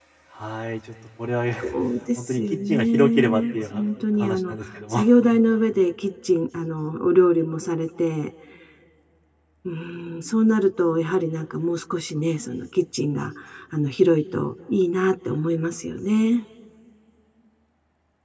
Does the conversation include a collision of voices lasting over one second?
Yes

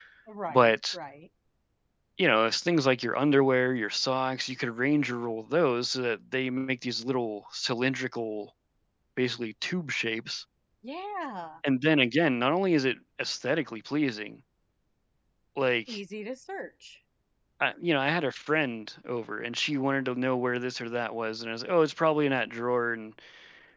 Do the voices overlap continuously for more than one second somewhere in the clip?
No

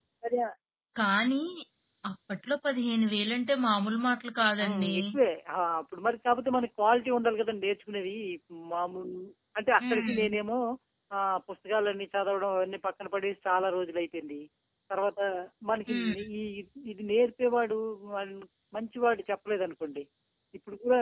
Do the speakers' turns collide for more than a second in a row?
No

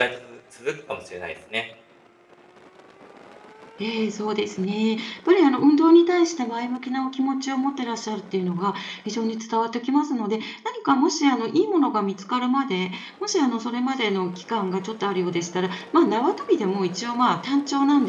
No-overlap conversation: Yes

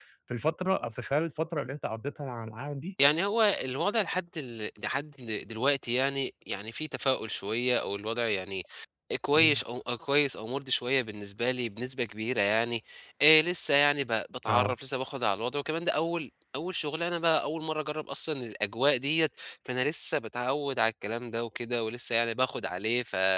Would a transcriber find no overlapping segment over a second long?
Yes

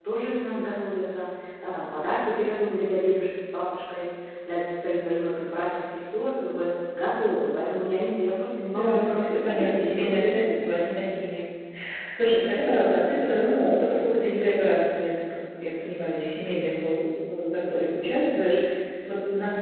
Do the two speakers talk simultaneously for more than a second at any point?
Yes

